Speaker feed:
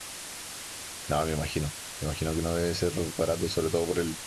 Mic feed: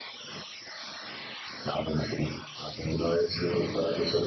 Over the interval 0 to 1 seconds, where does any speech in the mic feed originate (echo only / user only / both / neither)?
neither